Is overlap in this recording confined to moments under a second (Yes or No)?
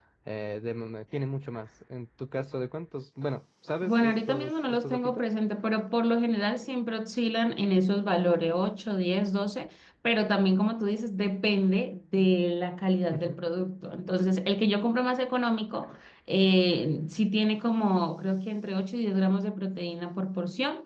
No